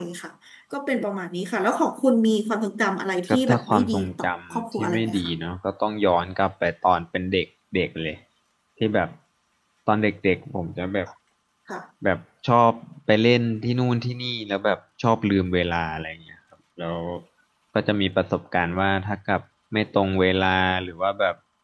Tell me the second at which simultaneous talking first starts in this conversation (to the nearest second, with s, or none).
3 s